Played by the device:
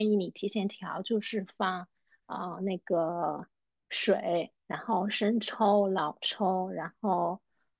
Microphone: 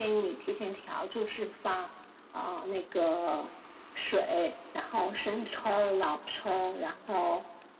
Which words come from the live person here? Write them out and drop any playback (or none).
none